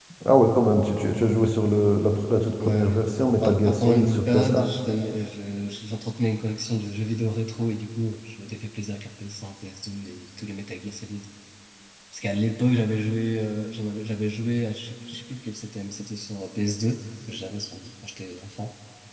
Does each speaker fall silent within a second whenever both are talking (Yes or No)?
No